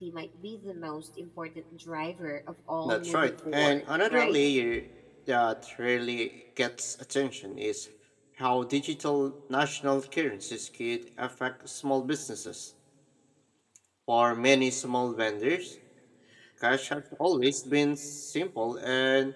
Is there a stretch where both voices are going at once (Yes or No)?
Yes